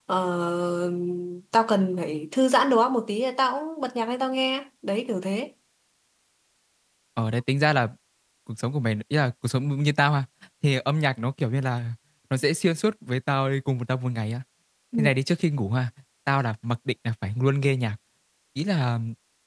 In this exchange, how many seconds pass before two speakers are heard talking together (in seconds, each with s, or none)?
none